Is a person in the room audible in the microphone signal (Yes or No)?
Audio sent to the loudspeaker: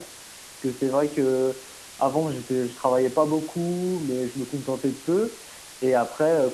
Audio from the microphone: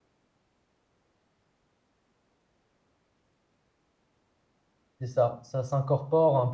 Yes